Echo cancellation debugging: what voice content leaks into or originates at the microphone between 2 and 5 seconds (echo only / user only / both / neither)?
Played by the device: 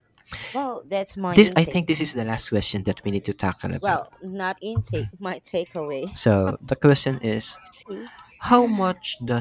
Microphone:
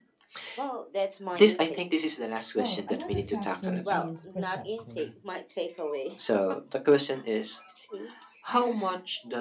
both